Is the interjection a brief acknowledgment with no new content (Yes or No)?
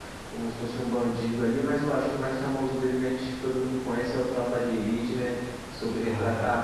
Yes